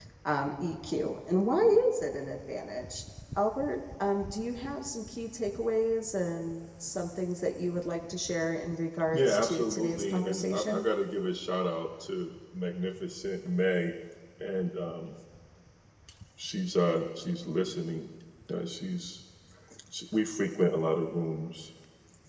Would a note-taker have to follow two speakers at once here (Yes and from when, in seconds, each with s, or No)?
Yes, from 9.1 s